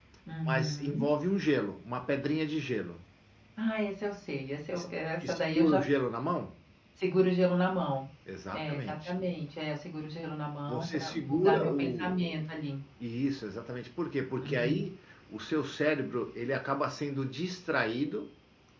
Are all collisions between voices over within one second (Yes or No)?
No